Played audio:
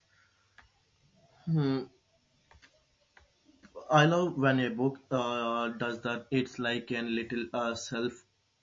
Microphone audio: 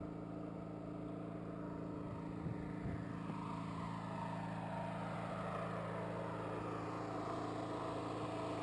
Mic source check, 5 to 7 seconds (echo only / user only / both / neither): neither